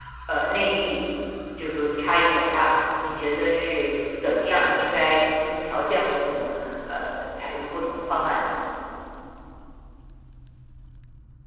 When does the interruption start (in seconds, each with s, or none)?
none